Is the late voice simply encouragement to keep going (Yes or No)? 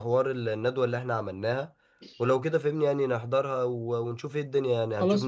No